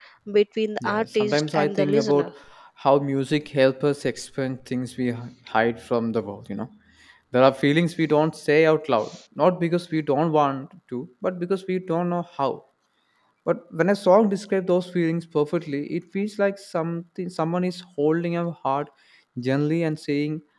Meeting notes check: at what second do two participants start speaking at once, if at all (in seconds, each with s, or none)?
0.8 s